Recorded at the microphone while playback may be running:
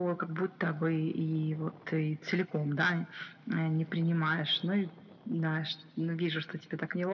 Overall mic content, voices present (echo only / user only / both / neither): echo only